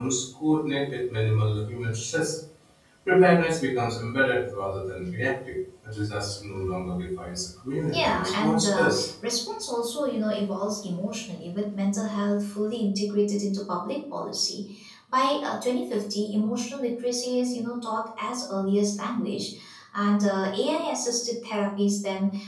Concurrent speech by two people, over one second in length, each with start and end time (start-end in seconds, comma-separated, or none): 7.9-9.1